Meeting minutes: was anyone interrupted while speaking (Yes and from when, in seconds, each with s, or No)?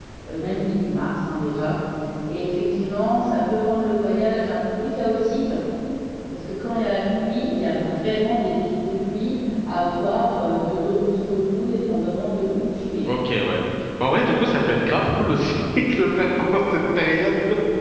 No